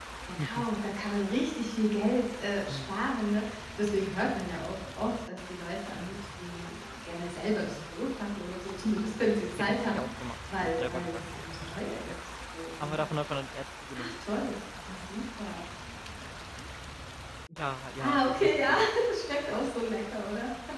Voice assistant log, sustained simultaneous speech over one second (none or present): present